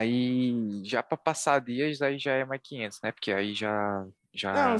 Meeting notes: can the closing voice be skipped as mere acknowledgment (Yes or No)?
No